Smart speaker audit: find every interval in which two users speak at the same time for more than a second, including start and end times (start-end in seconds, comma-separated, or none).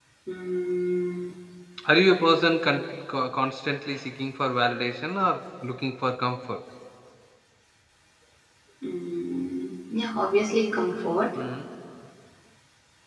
none